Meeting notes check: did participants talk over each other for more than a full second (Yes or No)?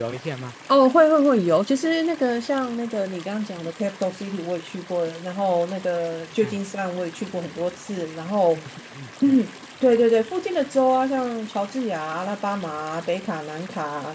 No